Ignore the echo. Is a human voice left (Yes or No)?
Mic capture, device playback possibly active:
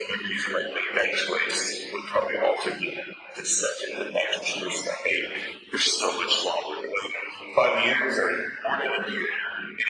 No